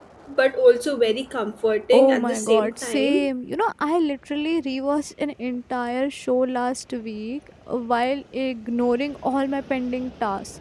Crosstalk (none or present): present